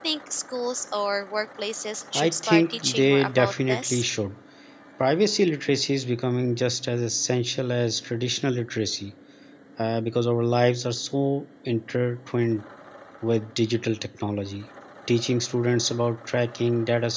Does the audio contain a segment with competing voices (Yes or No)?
Yes